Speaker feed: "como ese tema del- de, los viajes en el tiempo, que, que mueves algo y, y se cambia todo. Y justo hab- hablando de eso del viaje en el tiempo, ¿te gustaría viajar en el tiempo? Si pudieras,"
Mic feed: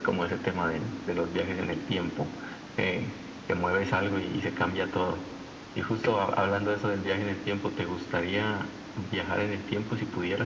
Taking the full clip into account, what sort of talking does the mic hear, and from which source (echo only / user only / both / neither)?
echo only